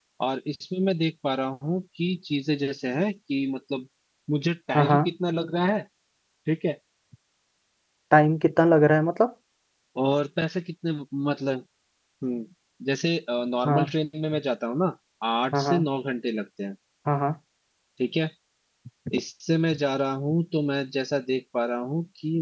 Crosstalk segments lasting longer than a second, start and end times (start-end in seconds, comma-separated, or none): none